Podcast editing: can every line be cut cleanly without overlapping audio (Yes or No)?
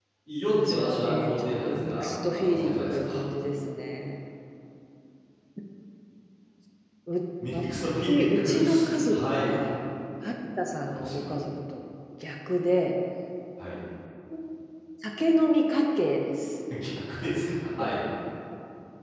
No